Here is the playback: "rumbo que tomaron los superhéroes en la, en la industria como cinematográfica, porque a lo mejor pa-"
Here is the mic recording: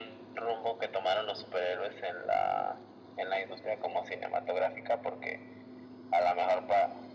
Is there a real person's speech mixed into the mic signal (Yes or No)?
No